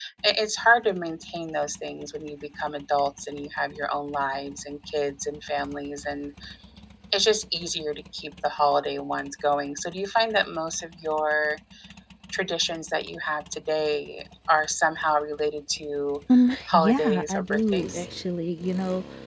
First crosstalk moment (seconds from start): 17 s

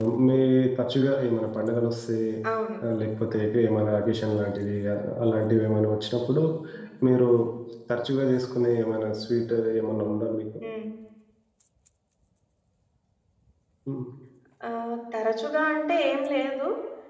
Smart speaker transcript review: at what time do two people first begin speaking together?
none

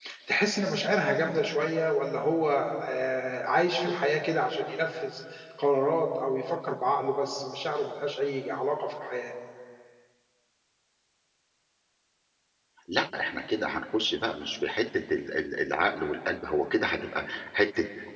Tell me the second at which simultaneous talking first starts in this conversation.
none

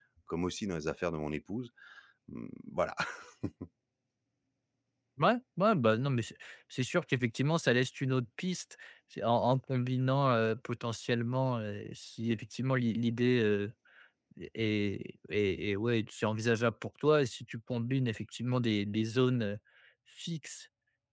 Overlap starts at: none

